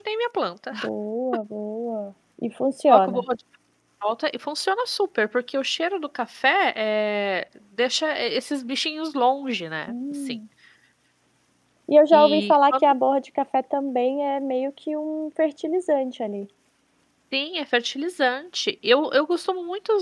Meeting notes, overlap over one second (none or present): none